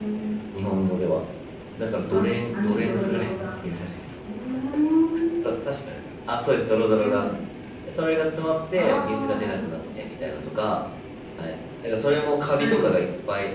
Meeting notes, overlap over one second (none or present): present